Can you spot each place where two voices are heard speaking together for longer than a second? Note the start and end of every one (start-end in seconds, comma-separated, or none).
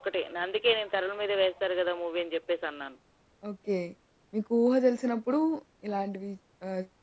none